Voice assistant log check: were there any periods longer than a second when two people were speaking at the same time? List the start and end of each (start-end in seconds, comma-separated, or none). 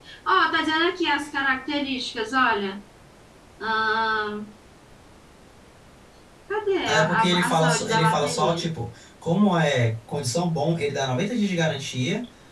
6.8-8.6